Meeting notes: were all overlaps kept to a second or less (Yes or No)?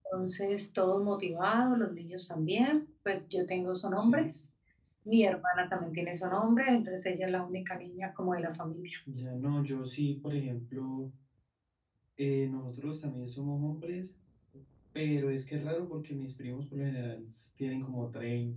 Yes